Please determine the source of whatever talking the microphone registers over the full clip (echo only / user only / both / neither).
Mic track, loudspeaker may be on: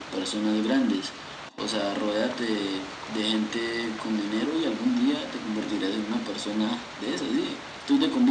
echo only